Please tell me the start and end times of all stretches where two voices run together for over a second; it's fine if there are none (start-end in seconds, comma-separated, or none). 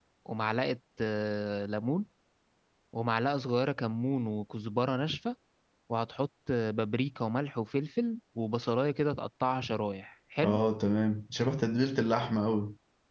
none